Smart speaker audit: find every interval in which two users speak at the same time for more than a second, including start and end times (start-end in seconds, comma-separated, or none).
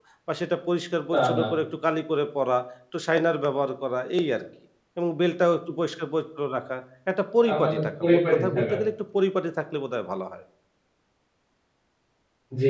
7.4-8.7